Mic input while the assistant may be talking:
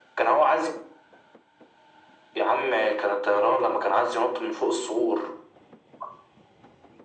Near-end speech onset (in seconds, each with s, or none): none